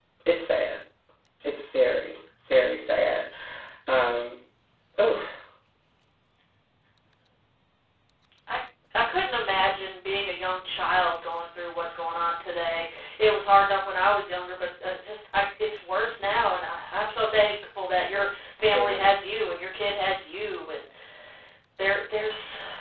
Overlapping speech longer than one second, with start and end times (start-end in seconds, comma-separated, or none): none